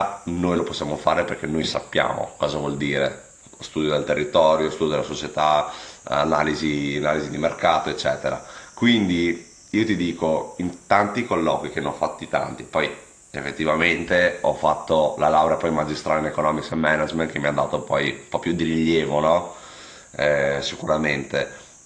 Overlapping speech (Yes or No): No